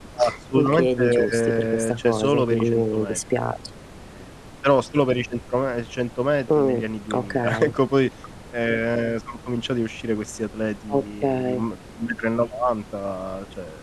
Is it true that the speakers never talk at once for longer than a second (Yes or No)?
No